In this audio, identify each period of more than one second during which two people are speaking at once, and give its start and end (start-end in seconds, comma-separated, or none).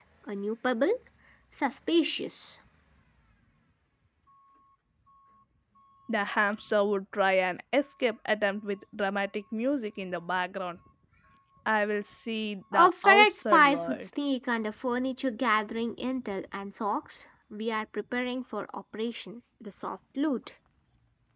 12.7-14.0